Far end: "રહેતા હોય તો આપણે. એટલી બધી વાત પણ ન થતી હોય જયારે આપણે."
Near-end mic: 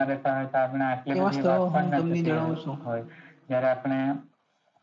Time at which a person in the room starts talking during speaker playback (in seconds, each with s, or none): 1.2 s